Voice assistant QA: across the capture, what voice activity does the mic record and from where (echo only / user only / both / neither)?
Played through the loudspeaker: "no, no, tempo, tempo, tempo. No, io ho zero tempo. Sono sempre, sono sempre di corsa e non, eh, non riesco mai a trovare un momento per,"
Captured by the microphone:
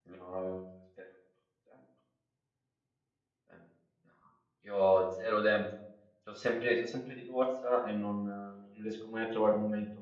echo only